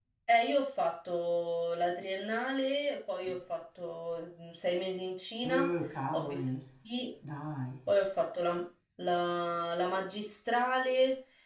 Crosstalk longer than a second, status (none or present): none